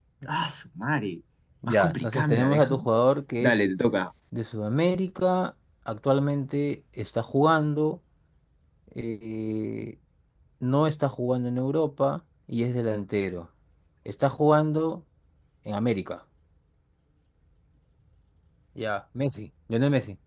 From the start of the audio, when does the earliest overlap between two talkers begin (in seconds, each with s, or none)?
1.6 s